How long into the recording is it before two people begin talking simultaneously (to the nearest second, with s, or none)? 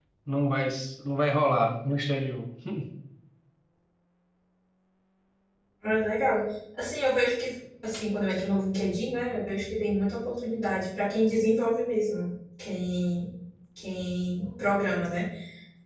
none